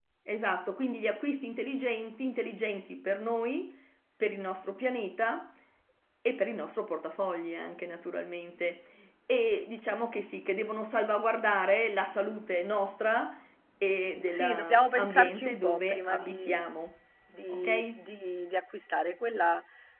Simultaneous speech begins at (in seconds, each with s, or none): 14.2 s